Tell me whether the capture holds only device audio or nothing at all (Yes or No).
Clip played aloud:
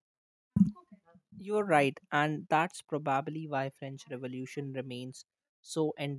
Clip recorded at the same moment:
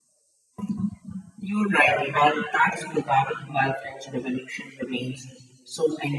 Yes